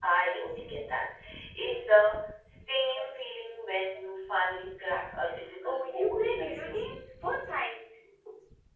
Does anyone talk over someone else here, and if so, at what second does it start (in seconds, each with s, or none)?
5.6 s